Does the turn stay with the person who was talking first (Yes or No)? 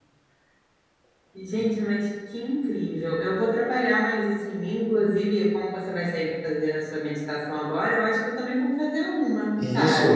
No